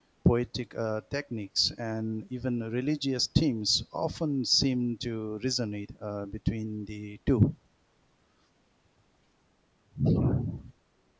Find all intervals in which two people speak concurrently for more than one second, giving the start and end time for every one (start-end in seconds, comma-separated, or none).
none